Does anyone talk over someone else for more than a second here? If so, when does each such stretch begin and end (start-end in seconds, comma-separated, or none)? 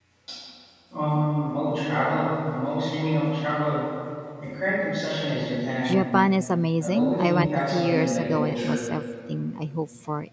6.8-8.8